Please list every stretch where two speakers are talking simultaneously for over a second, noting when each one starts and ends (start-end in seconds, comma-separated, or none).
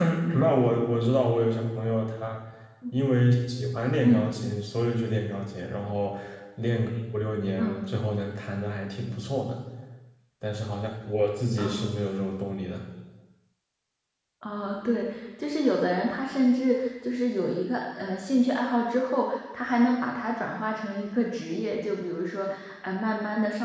none